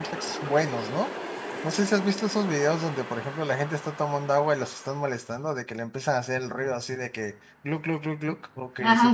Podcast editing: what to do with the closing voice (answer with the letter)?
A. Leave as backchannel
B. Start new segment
A